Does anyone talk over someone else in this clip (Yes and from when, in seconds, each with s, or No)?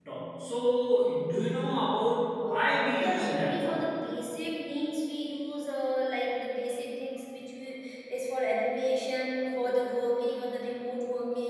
Yes, from 2.4 s